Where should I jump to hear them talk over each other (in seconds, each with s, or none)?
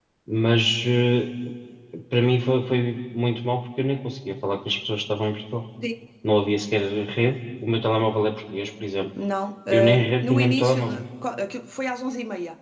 9.7 s